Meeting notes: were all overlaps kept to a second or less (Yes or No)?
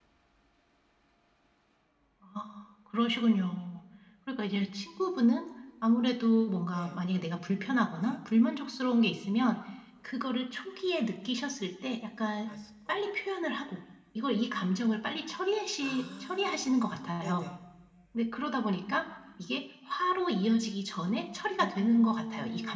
No